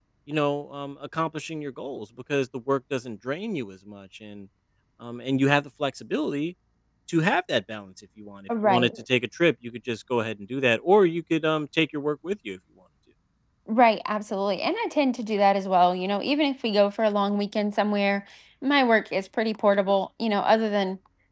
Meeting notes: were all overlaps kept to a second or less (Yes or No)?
Yes